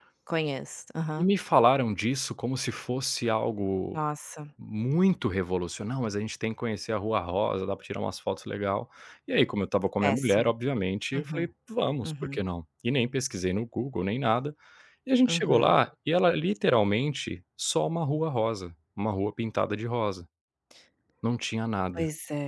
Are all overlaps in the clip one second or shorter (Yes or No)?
Yes